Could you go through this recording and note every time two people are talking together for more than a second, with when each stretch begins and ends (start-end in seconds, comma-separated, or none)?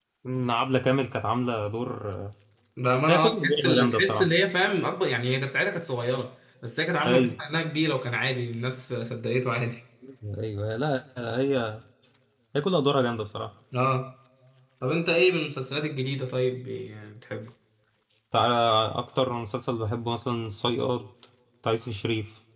3.1-4.3